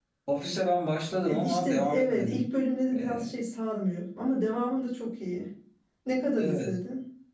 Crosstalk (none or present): present